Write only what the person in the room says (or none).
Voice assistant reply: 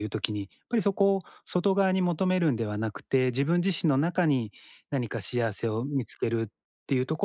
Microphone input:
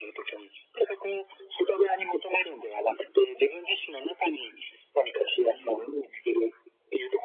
うんうん。